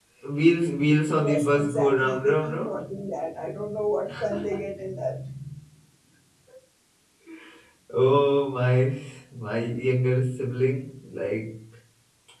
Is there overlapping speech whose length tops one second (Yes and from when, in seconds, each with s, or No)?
Yes, from 1.1 s